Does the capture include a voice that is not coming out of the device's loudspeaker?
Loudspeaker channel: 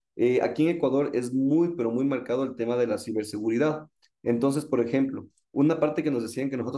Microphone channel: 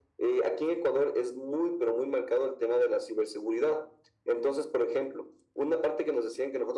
No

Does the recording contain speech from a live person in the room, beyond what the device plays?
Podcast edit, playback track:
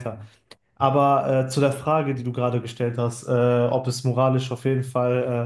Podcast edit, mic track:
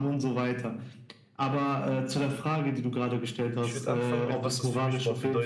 Yes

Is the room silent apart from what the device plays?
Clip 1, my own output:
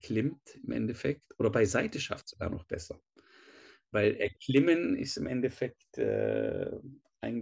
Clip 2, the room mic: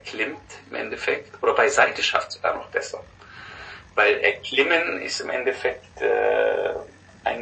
Yes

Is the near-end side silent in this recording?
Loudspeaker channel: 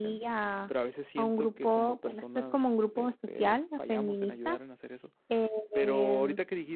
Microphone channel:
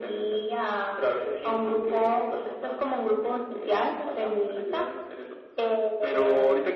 Yes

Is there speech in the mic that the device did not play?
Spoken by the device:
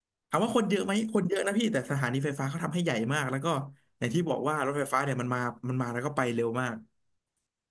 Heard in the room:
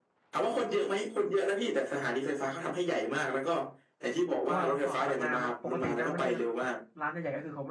Yes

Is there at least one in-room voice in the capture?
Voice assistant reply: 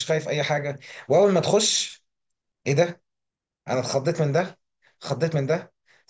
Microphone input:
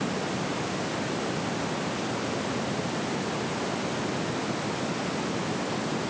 No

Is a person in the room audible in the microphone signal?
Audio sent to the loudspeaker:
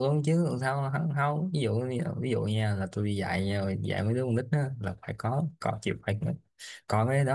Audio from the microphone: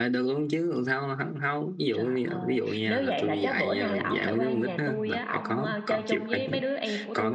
Yes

